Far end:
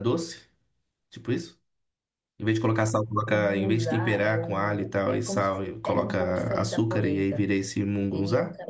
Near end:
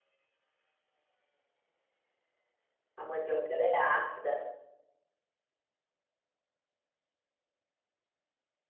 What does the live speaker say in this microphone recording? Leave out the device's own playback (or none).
A mandioca ela é ácida,